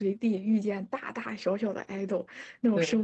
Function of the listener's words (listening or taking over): listening